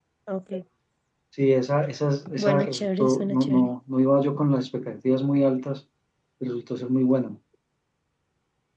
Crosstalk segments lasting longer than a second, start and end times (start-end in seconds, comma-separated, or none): 2.4-3.7